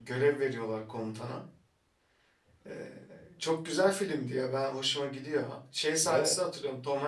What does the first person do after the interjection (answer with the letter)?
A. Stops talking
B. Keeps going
B